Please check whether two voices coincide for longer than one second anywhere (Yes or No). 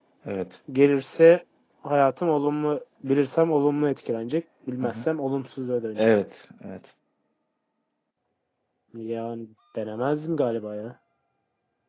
No